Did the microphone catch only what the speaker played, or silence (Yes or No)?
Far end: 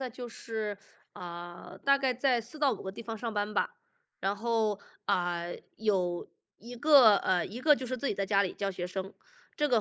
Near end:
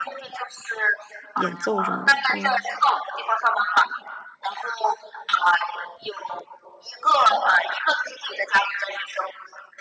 No